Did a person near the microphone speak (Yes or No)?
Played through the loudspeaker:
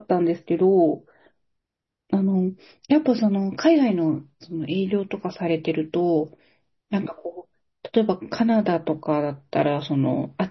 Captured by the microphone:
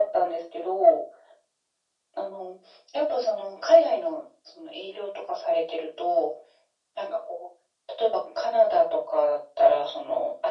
No